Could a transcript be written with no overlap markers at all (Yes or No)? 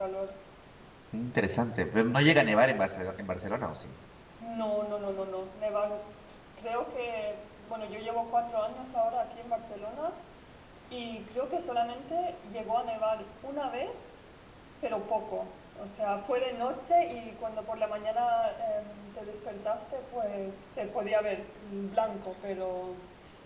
Yes